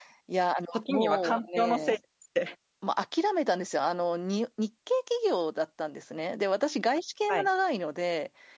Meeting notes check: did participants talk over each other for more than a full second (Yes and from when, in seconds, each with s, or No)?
Yes, from 0.7 s